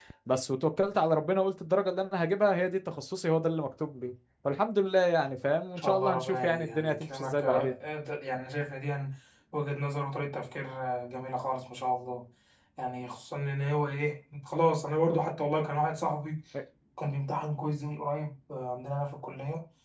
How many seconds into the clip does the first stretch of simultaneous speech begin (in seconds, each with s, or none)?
5.8 s